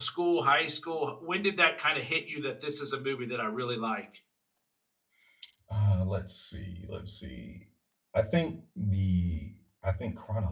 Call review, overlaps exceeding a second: none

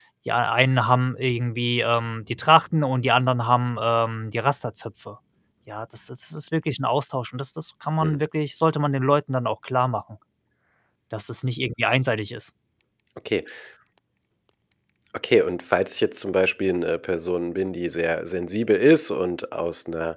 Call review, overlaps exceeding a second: none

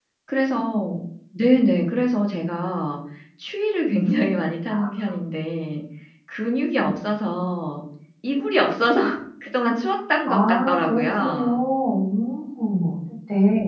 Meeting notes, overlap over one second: present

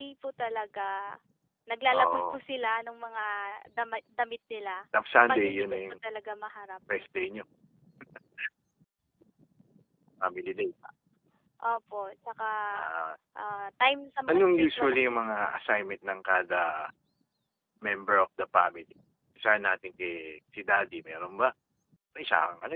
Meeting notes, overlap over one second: present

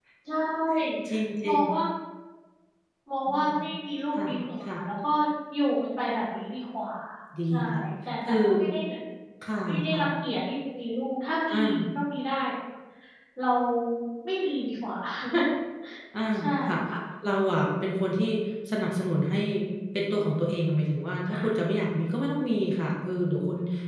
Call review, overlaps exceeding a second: none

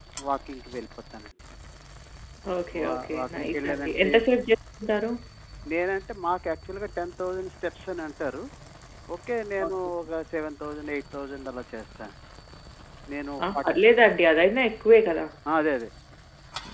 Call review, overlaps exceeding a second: present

